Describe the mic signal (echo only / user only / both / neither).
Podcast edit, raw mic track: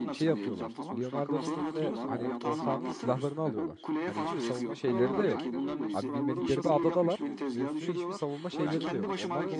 both